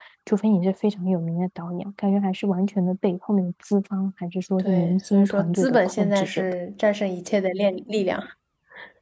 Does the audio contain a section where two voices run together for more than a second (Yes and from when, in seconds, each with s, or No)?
Yes, from 4.6 s